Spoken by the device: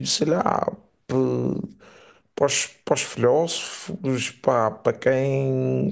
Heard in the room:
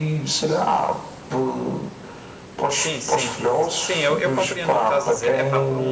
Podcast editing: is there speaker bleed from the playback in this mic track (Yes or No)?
Yes